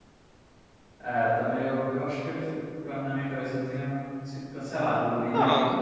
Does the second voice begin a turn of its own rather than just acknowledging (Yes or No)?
Yes